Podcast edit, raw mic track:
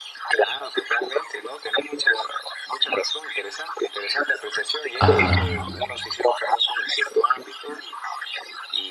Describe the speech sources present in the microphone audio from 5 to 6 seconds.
both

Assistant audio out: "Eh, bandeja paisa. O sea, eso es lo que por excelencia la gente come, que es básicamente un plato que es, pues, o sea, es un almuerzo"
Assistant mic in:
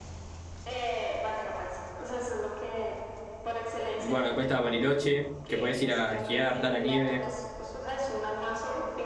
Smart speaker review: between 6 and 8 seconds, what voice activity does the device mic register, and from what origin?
both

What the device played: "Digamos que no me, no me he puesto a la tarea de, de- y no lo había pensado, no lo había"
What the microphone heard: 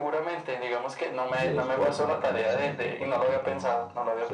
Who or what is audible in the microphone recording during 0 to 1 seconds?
echo only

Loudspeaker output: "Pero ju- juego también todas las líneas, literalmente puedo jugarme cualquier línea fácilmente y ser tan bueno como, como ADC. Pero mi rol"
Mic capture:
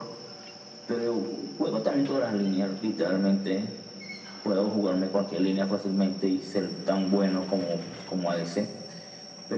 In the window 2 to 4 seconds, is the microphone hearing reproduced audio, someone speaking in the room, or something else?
echo only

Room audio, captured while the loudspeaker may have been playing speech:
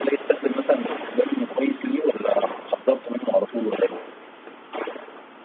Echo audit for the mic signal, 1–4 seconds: echo only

